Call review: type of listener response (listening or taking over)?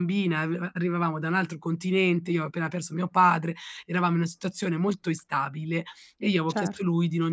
listening